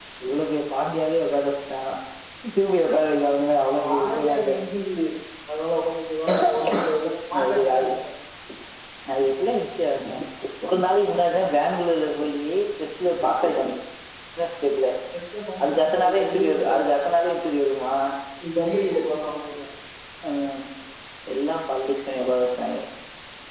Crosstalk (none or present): present